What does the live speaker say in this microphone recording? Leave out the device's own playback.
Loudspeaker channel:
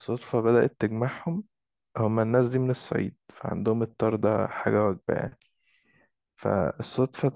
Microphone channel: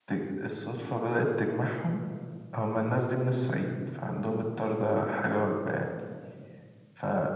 none

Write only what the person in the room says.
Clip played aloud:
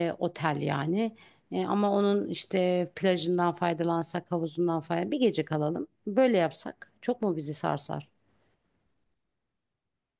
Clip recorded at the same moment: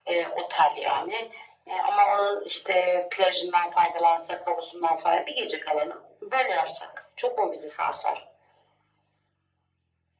none

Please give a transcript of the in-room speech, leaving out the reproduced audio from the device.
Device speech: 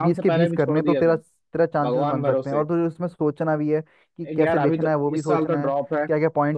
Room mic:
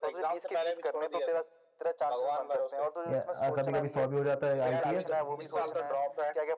या कभी कभी सौ भी हो जाता है आईपीएस

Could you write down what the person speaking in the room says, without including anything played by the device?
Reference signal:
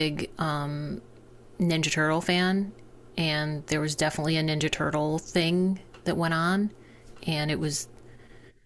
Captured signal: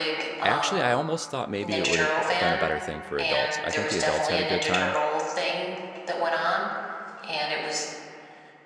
actually I almost thought maybe it would have been a better thing for adults. I think the adults had a good time

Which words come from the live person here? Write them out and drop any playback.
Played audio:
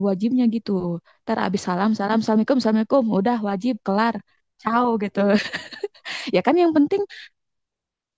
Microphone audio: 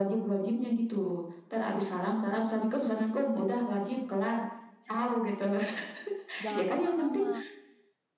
jangan lama-lama.

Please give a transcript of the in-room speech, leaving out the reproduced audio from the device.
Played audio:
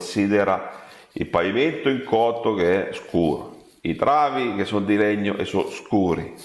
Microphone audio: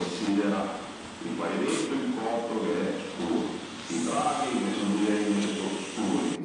none

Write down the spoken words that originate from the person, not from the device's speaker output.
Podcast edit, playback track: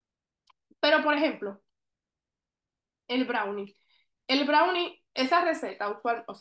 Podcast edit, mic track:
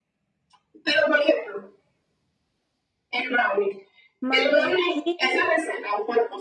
Mantequilla.

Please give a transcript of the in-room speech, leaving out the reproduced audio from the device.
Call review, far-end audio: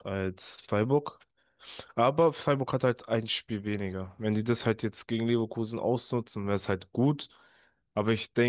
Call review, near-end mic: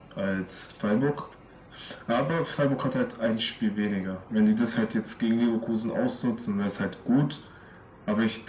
none

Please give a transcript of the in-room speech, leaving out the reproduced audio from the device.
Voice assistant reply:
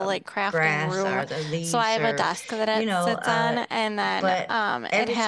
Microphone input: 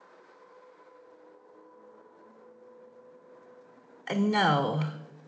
Uh, no.

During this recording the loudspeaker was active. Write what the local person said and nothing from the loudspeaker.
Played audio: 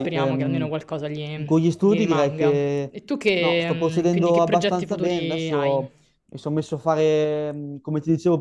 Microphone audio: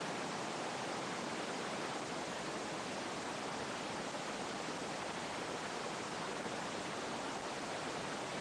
none

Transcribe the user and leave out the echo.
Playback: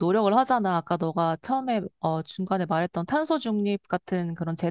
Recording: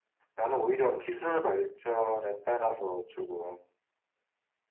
나는 오히려 기술 발전에 따라서 조금

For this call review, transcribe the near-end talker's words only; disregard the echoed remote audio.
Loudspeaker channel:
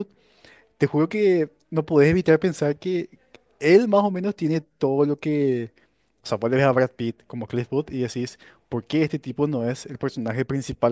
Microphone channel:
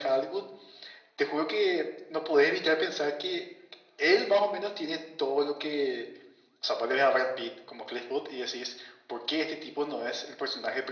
none

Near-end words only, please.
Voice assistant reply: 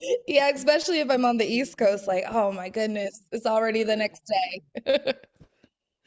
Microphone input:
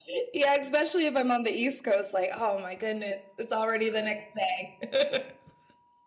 none

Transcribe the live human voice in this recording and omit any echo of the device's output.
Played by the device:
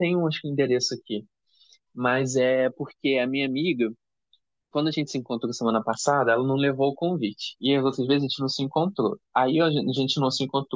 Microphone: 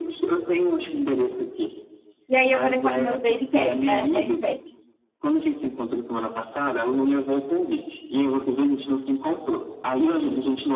E aí eu vou ter que falar com meus baby cats, né? Mãe de pet.

